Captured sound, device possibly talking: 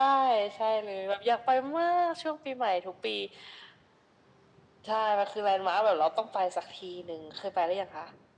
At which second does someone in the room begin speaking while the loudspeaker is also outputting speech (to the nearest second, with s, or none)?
none